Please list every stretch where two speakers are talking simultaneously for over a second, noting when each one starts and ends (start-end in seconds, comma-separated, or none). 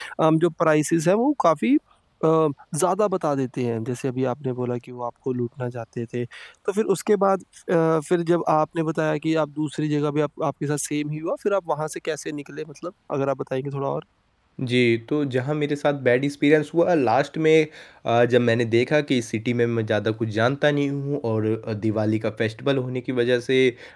none